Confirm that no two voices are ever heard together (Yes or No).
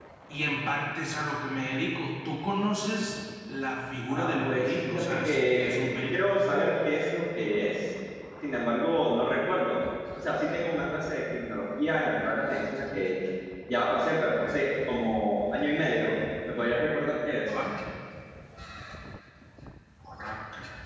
No